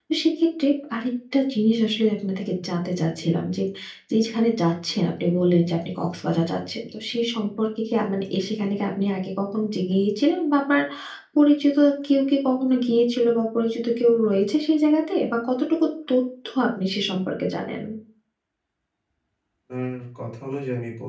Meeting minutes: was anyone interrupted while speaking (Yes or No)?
No